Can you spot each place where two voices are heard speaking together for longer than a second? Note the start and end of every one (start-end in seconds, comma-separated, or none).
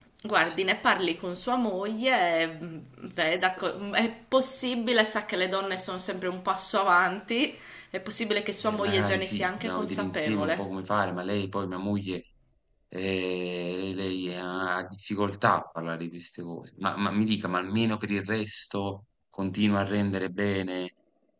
8.6-10.7